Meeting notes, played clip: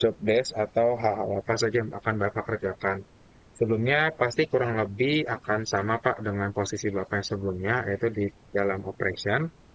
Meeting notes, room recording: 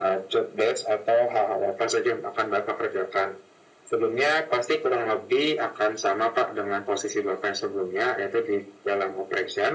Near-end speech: none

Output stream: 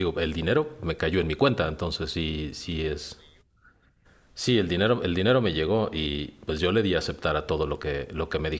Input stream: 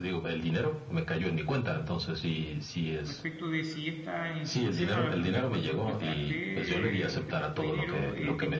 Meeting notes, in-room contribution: present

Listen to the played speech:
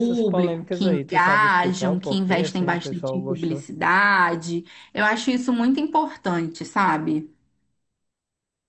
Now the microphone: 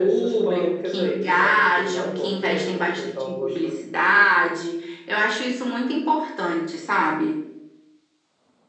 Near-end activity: none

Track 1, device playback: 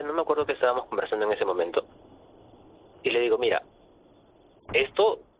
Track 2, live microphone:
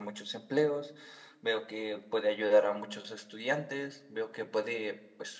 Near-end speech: present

